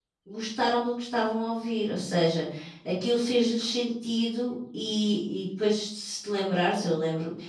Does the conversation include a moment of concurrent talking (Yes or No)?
No